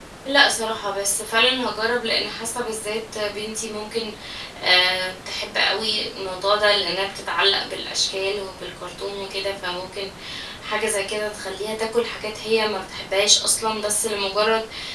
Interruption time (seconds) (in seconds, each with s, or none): none